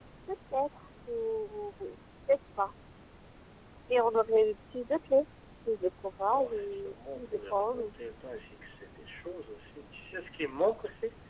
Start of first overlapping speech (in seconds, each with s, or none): 6.3 s